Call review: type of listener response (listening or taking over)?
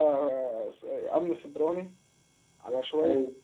listening